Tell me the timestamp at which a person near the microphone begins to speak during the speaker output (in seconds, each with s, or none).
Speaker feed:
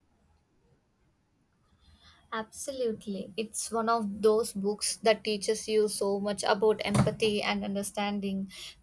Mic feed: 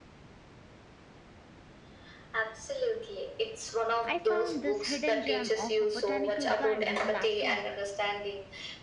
4.0 s